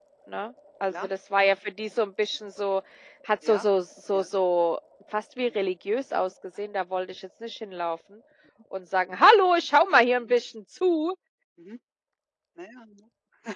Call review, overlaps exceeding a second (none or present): none